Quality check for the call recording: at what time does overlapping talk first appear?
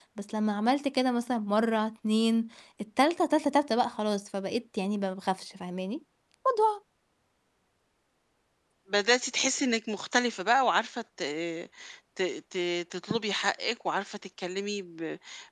none

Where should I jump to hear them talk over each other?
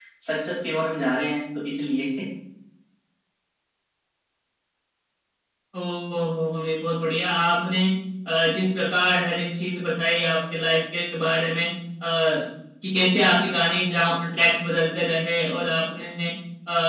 none

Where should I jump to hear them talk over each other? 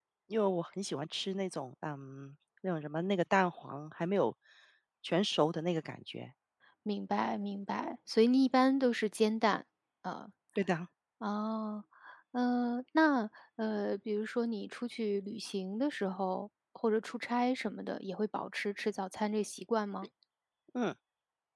none

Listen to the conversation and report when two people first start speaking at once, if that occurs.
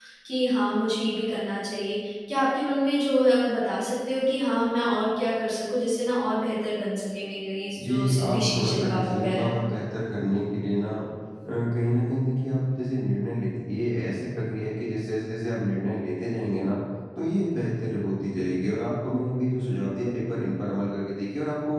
7.8 s

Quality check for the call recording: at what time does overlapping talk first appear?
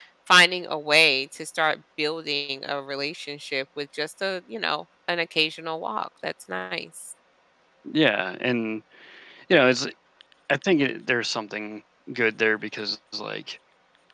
none

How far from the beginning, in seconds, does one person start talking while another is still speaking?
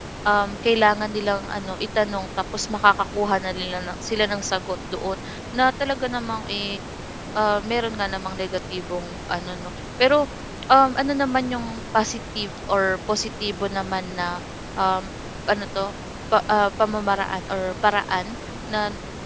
none

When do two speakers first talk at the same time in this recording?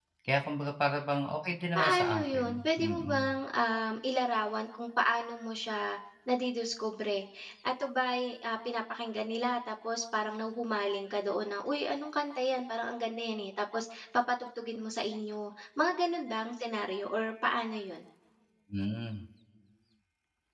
1.8 s

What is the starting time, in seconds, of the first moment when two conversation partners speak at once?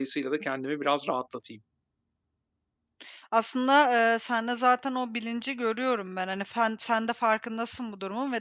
none

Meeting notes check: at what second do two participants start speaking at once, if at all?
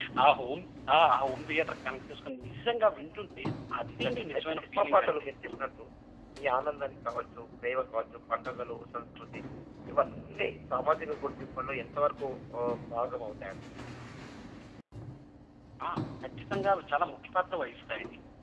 4.0 s

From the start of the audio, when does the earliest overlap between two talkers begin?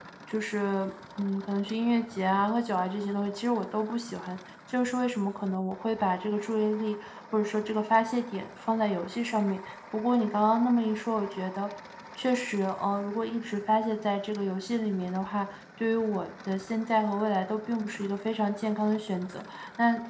none

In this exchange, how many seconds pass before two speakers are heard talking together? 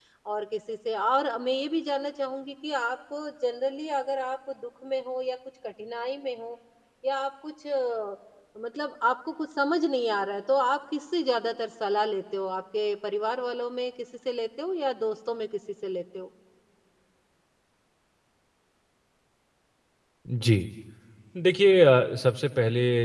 none

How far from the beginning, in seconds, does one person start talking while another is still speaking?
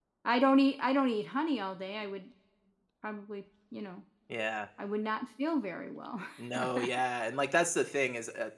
none

